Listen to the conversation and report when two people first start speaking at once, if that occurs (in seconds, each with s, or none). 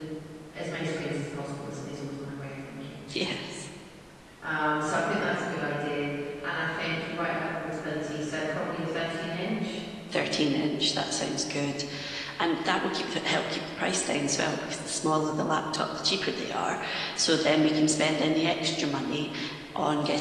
none